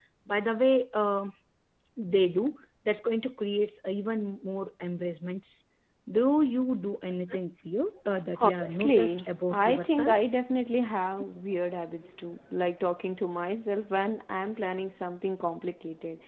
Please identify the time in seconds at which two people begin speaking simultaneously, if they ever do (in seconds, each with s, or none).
8.4 s